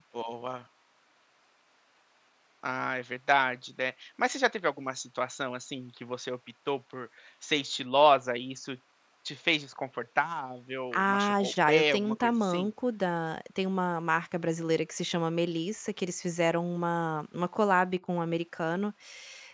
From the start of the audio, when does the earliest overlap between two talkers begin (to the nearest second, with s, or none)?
11 s